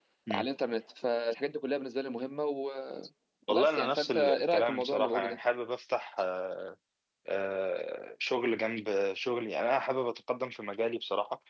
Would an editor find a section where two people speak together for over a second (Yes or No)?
Yes